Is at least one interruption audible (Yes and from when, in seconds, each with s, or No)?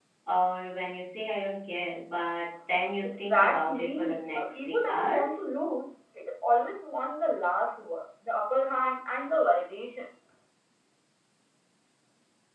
Yes, from 3.0 s